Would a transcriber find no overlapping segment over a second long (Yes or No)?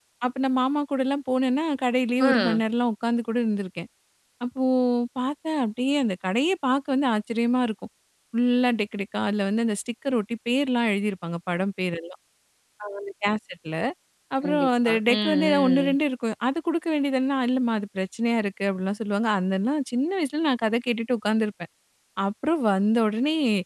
No